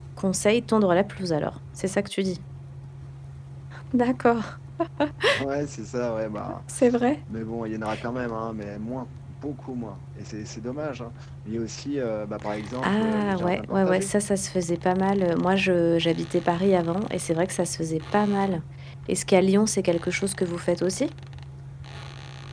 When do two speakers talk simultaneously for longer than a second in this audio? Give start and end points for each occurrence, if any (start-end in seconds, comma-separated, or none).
12.8-14.1